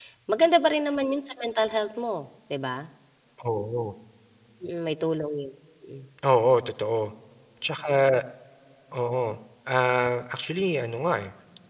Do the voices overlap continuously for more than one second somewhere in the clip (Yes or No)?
No